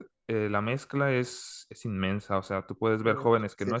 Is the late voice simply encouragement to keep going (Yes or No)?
Yes